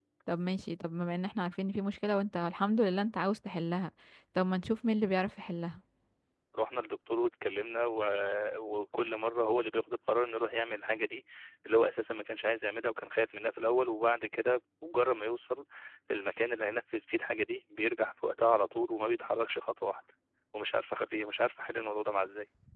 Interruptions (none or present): none